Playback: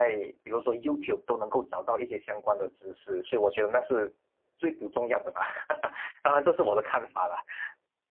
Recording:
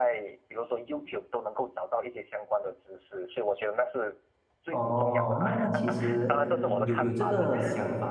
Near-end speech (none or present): present